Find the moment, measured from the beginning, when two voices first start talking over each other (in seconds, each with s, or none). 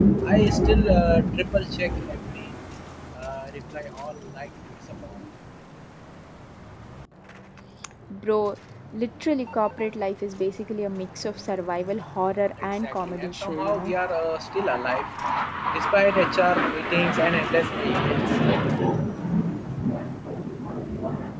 12.6 s